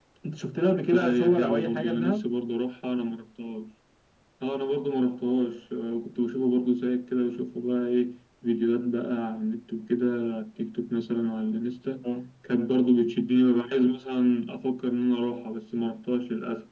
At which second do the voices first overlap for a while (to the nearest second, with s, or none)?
1 s